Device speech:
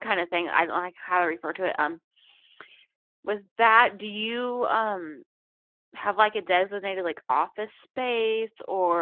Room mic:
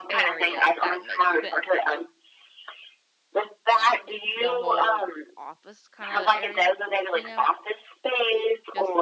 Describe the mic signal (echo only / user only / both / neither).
both